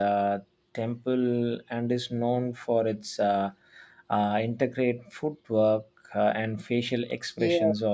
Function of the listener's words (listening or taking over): taking over